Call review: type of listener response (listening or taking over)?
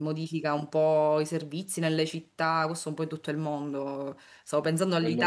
listening